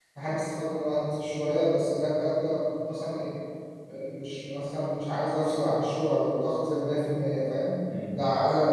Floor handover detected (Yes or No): No